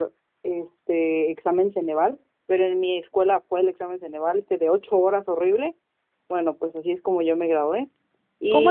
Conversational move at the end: taking over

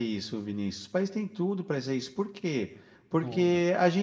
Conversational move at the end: listening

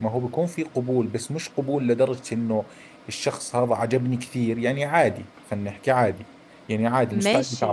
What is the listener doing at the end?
listening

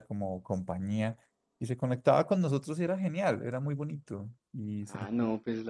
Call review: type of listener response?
taking over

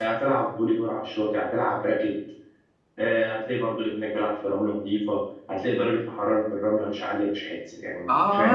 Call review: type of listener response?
taking over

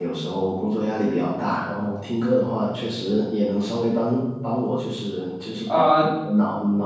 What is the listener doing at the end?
listening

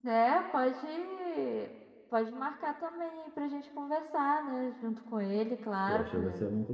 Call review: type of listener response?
taking over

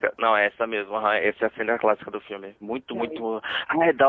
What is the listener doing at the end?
listening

